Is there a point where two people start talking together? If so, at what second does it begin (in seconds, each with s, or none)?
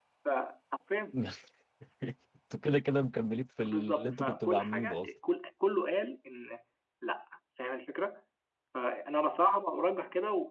3.6 s